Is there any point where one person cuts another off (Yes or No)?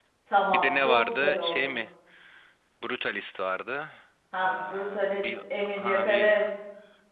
Yes